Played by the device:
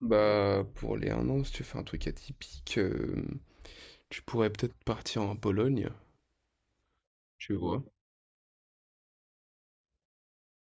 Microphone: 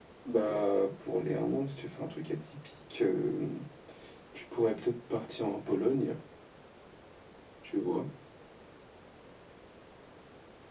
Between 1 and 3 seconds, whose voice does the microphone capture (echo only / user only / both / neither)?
echo only